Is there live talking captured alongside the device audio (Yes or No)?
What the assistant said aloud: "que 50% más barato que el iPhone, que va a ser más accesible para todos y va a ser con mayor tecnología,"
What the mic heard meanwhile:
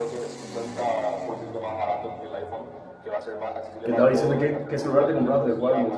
Yes